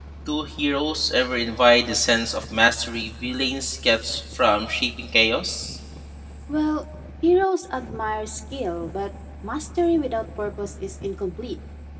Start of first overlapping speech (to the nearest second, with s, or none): none